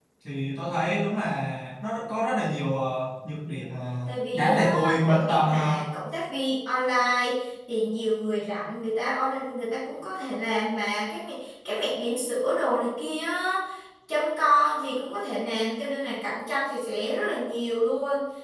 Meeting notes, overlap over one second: present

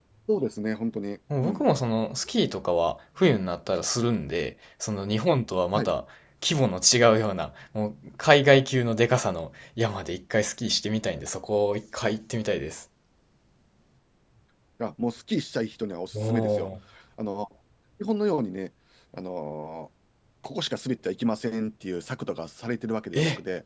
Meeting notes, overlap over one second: none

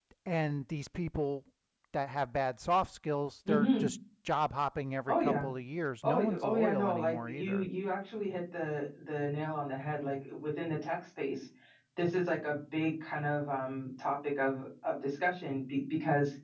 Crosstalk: present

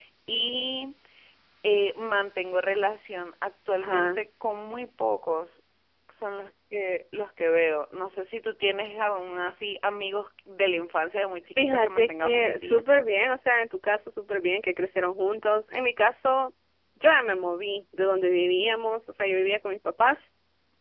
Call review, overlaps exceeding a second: present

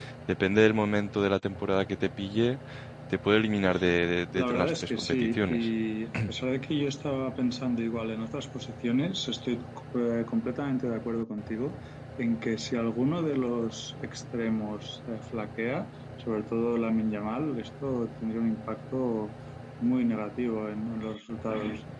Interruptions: present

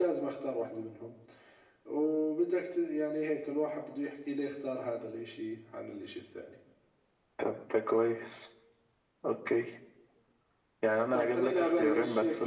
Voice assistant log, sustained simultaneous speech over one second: present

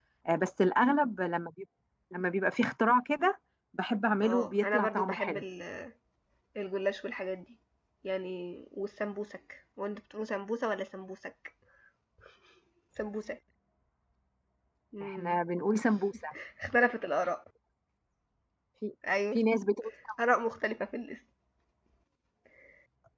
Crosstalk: present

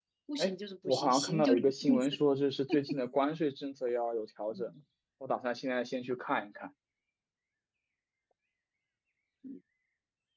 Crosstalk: present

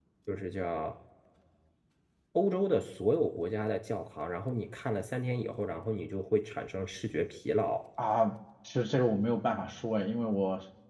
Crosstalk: none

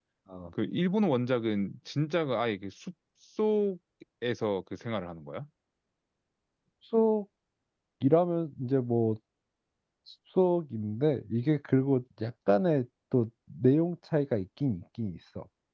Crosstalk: none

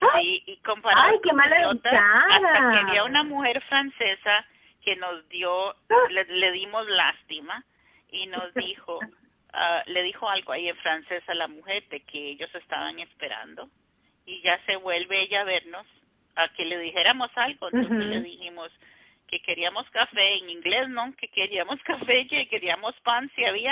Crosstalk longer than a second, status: present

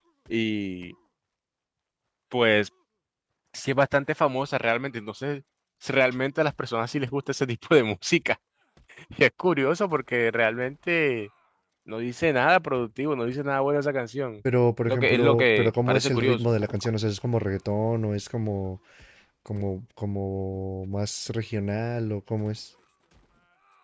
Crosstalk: present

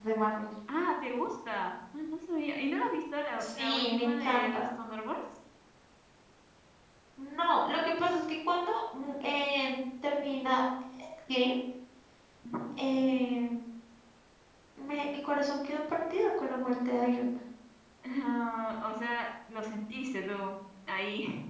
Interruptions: present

